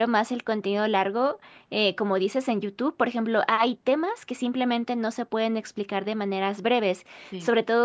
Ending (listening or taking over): listening